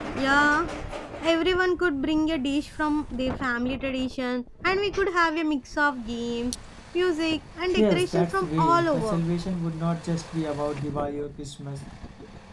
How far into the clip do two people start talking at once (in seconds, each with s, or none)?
7.8 s